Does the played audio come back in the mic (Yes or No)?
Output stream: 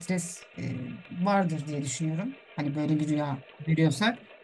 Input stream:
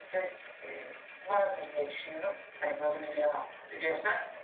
Yes